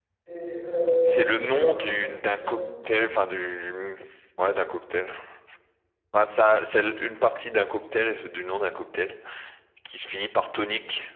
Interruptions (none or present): present